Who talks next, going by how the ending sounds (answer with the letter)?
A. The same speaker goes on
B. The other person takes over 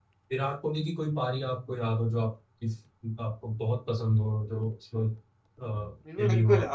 B